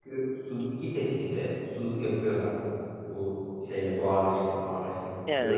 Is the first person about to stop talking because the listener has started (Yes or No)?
Yes